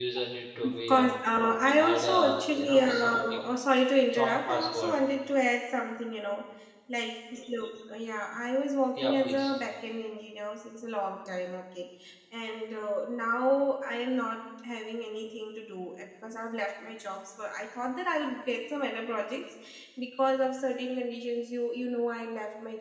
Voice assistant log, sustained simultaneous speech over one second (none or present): present